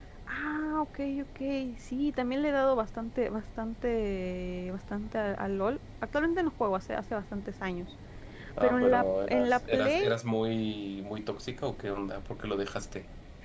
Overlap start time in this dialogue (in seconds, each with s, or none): 8.6 s